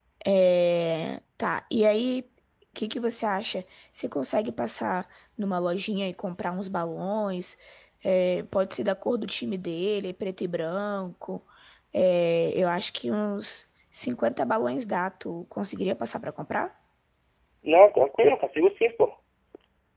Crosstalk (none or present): none